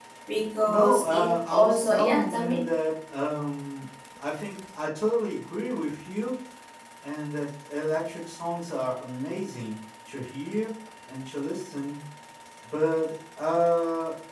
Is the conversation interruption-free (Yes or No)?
No